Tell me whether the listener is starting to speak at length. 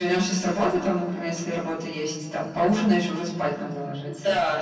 Yes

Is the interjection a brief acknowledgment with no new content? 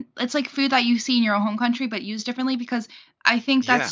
Yes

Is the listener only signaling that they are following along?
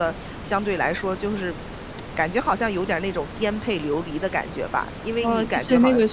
No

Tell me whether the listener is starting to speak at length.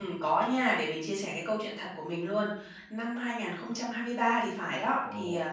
No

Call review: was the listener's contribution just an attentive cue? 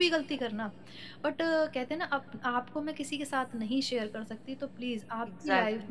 No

